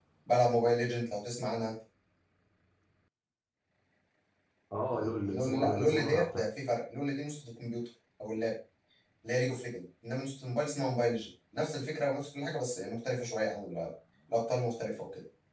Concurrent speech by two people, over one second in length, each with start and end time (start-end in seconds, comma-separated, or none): 4.9-6.4